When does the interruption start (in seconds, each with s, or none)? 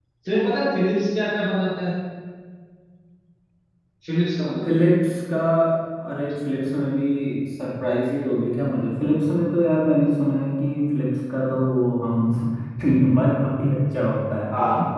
none